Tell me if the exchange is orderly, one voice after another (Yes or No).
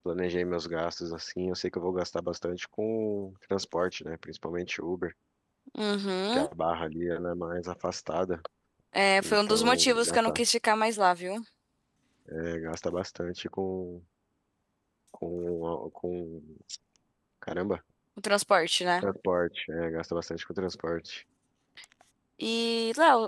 No